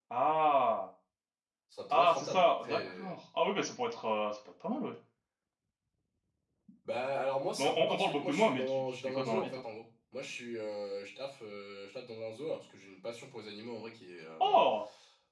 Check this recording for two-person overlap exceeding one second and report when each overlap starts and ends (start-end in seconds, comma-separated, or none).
1.9-3.1, 7.6-9.6